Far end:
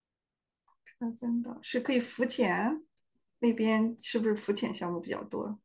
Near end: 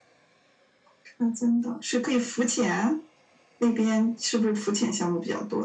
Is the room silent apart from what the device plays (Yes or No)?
Yes